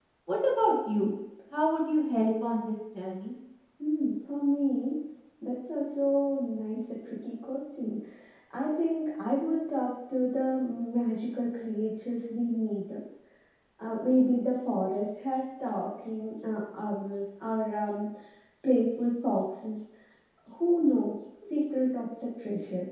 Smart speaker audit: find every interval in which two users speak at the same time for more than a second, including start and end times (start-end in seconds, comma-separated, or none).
none